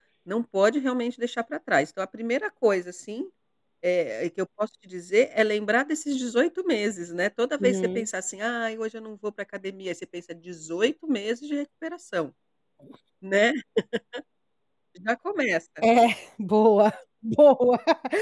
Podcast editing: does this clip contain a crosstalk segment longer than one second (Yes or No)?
No